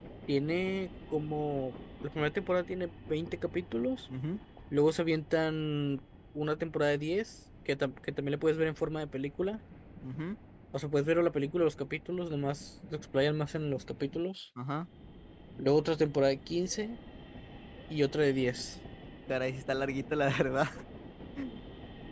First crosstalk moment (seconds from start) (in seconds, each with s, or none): none